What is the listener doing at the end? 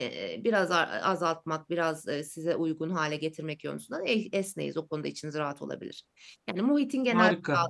listening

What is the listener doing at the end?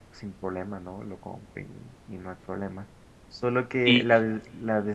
listening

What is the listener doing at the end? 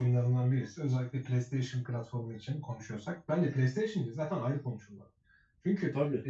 listening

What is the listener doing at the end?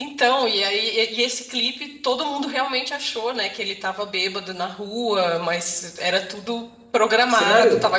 listening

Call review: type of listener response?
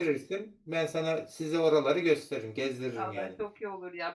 taking over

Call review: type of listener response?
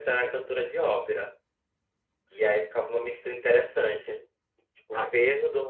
listening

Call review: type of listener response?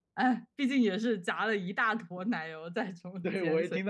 taking over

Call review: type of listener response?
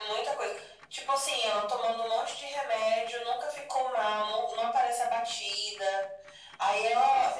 taking over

